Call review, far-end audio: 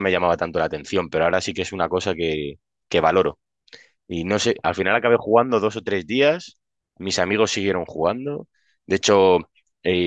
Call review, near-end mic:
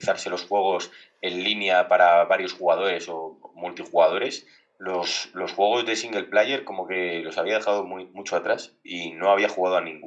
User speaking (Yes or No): Yes